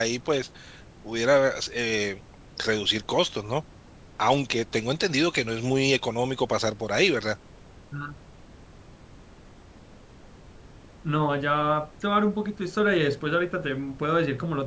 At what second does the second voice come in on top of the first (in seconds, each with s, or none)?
none